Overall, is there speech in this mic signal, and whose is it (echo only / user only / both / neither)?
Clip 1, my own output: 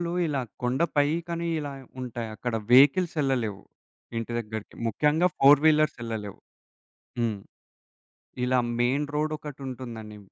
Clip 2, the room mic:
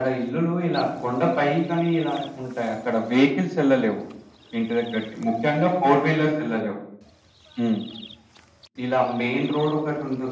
echo only